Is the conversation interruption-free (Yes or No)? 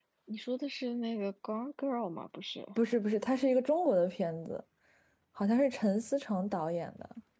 Yes